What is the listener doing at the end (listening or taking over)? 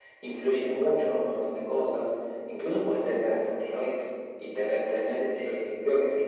listening